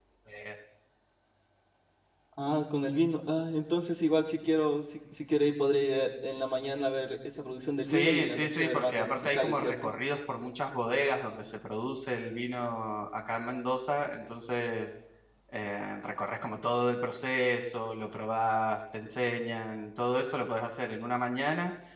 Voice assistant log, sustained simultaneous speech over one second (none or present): present